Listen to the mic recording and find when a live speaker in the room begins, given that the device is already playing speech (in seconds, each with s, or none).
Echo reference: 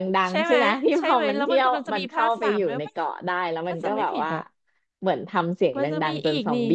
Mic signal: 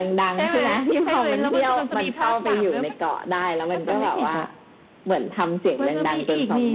none